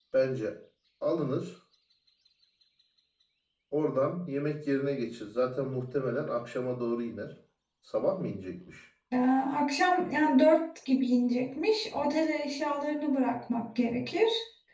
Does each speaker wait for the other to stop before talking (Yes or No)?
Yes